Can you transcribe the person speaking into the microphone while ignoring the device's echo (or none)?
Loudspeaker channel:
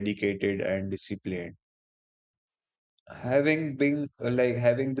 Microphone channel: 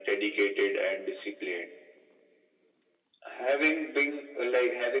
none